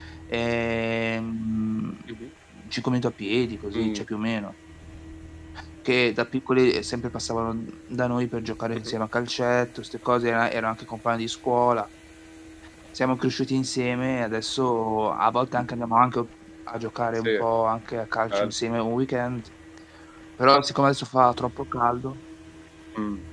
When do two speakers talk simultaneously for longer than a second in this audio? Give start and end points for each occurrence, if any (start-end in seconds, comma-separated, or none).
none